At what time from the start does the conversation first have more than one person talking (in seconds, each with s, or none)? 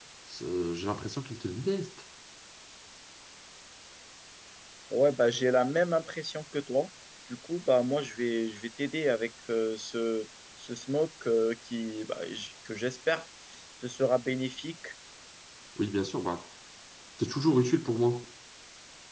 none